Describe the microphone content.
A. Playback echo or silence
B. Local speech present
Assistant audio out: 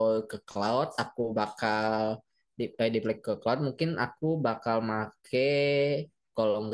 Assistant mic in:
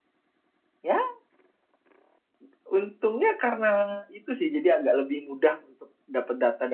B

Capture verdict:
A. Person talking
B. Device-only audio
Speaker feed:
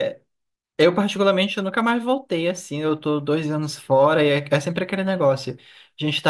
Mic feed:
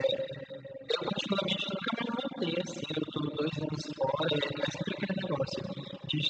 B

